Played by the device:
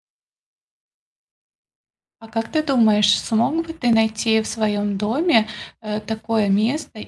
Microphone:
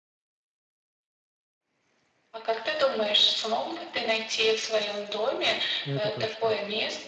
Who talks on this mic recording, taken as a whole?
both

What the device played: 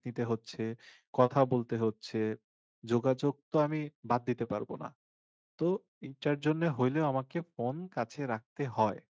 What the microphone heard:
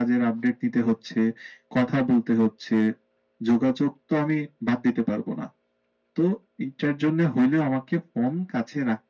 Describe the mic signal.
echo only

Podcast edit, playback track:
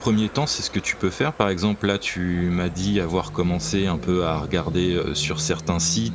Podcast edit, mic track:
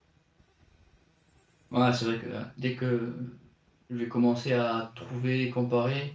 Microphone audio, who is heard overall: user only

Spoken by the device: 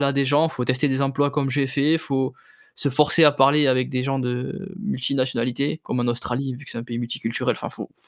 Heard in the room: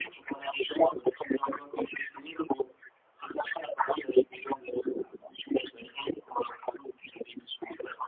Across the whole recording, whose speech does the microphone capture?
echo only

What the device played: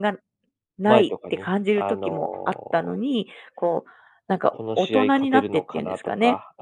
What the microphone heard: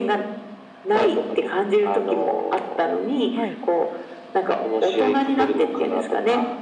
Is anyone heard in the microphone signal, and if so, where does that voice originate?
both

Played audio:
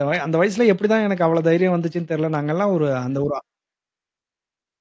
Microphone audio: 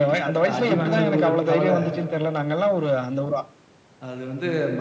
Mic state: both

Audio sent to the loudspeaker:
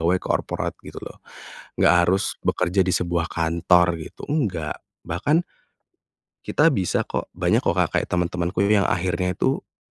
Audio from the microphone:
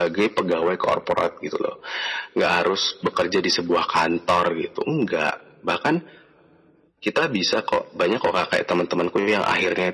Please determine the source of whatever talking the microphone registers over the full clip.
echo only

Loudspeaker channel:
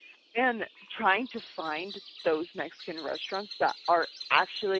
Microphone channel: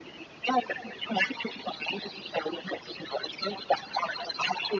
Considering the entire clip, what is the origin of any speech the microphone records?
echo only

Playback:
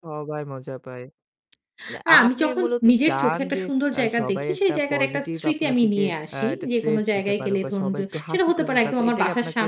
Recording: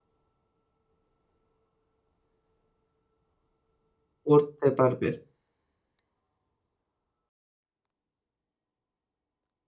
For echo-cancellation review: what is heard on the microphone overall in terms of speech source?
user only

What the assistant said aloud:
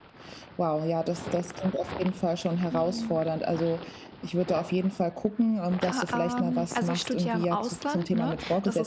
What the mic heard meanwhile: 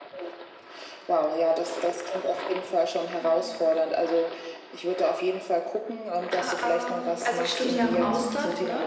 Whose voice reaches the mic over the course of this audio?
both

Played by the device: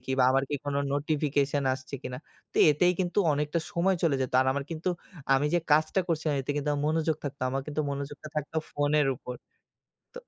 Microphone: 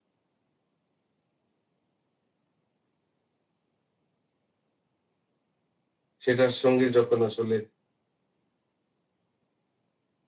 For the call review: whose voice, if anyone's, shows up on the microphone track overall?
user only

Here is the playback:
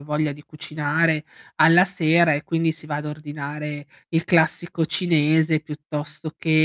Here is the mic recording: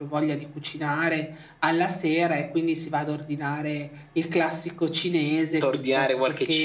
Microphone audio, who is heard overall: both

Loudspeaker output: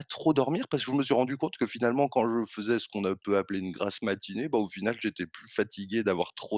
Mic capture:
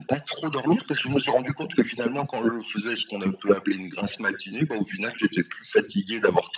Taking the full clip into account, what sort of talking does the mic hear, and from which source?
echo only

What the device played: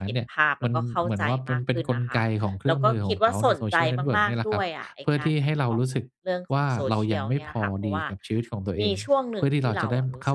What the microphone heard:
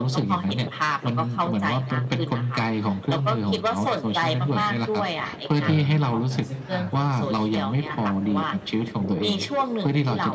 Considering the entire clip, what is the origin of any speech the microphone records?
both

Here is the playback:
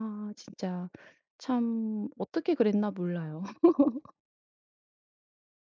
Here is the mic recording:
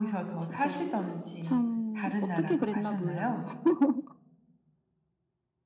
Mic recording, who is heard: both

